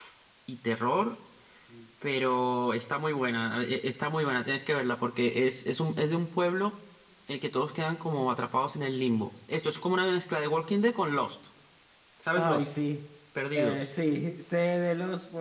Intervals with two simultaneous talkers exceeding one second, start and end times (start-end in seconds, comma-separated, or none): none